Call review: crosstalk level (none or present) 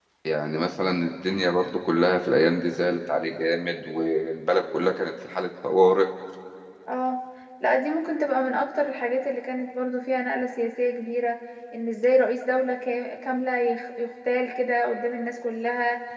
none